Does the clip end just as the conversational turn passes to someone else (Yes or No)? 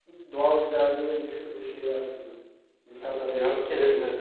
Yes